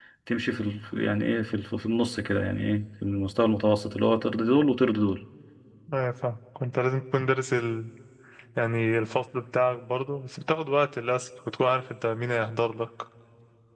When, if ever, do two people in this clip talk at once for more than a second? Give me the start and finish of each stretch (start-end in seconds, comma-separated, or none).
none